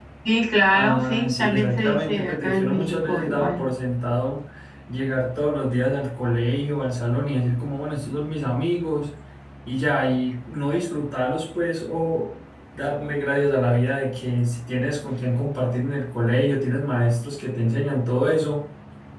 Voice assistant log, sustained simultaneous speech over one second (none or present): present